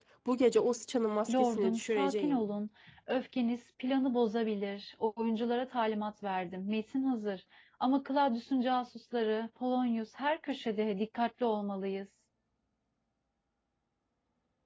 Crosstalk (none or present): present